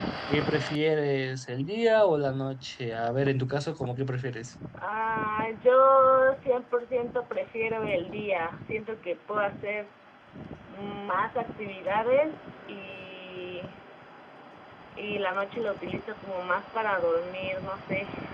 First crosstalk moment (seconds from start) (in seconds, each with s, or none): none